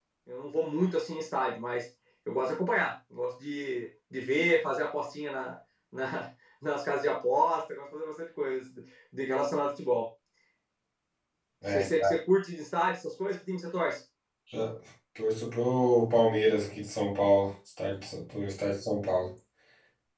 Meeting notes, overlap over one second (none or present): none